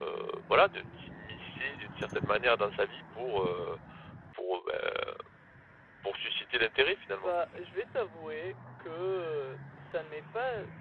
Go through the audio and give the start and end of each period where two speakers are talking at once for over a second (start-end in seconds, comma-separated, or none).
none